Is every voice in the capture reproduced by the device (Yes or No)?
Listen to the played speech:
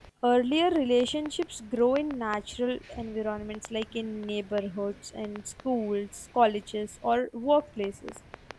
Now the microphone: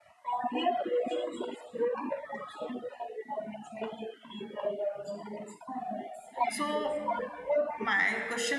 No